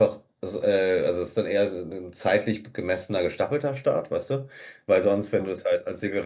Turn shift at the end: No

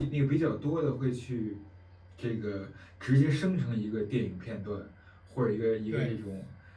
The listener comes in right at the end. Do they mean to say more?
No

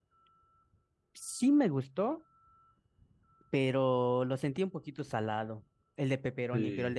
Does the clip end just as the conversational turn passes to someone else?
Yes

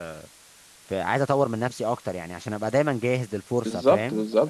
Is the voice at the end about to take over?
Yes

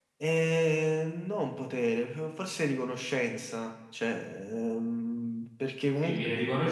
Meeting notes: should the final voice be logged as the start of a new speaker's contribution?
Yes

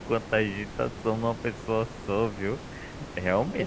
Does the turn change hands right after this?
No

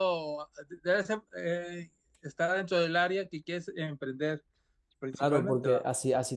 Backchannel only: No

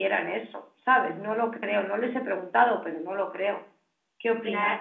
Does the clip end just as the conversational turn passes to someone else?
Yes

